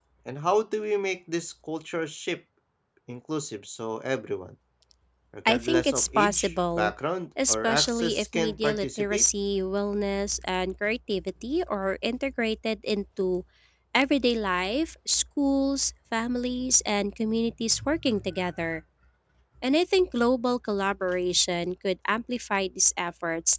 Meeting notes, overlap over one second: present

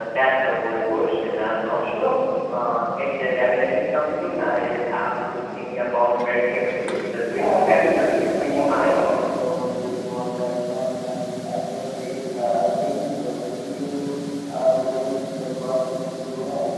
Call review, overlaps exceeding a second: present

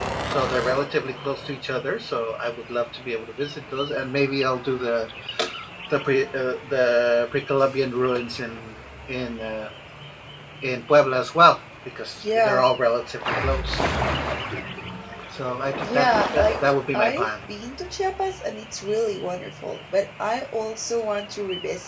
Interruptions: present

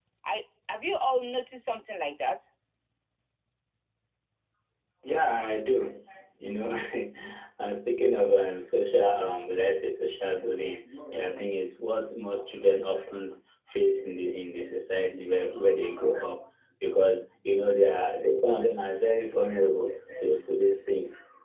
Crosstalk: none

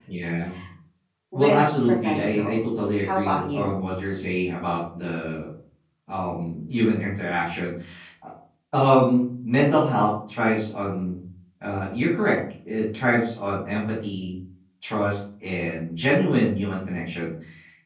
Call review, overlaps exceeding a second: present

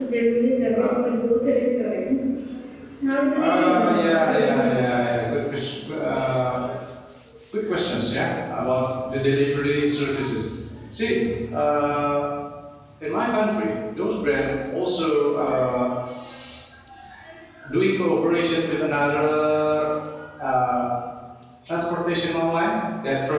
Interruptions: present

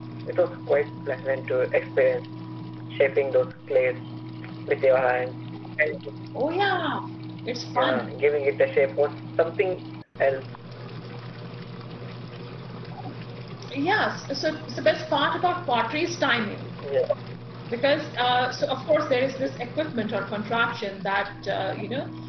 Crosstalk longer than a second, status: none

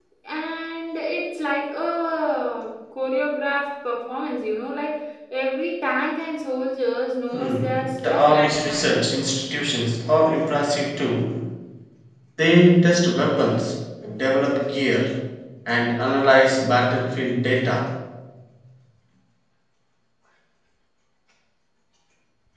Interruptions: present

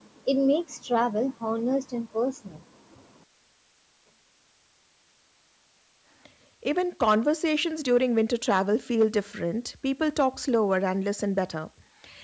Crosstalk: none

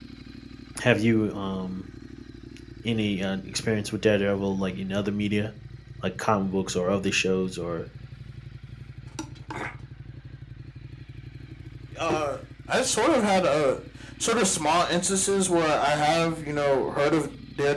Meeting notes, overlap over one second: none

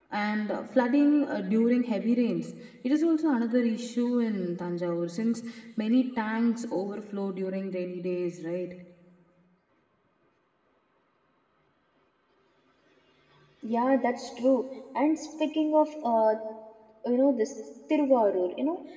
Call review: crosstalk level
none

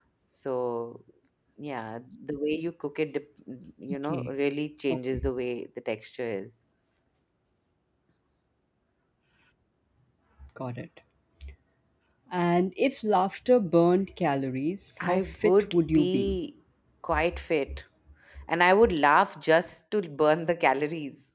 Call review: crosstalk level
present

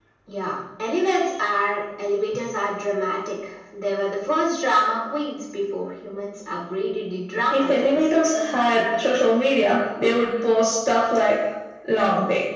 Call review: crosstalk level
present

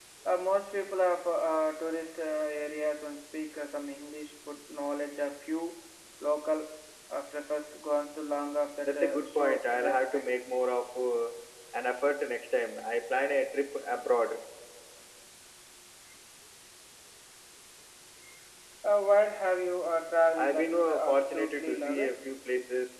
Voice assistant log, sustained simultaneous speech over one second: present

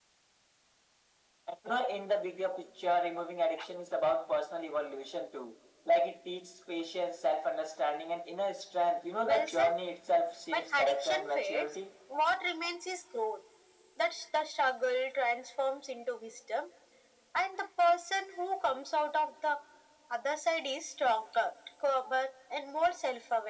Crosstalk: present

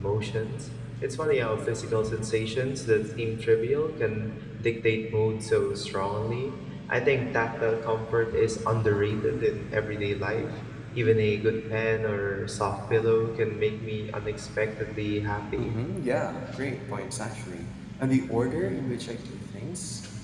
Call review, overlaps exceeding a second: none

